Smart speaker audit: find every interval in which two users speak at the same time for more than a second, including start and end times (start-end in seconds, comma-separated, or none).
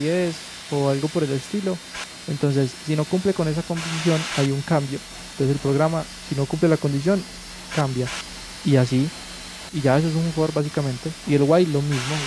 none